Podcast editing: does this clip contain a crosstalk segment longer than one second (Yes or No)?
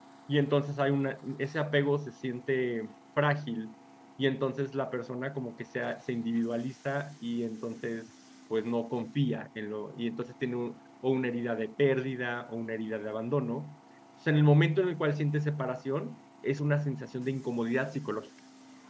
No